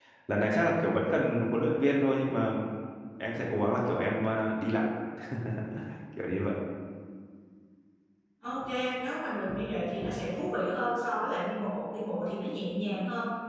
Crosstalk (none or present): none